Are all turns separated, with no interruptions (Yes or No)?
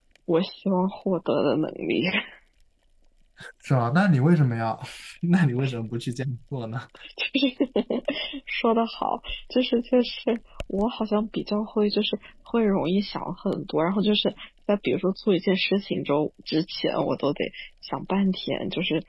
Yes